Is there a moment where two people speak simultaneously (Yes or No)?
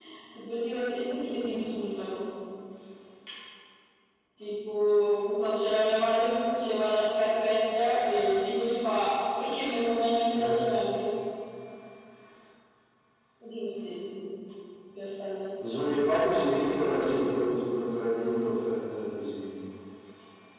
Yes